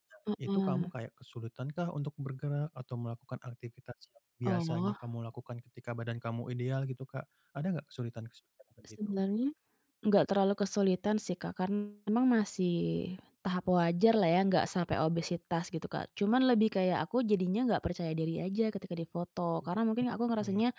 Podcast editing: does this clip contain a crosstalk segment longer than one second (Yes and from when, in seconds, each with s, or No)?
No